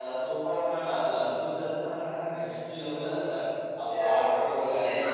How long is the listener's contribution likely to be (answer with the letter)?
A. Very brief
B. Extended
B